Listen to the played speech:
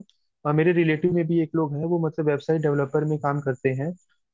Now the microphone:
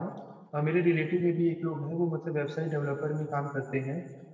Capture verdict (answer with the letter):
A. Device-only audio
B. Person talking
A